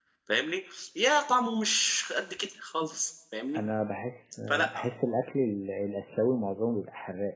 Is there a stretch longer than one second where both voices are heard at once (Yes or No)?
No